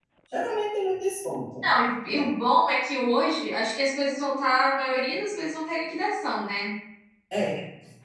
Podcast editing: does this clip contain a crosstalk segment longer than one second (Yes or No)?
No